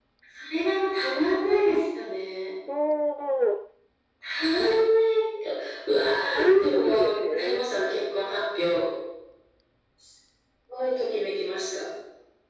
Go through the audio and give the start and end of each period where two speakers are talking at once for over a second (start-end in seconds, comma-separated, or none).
6.4-7.6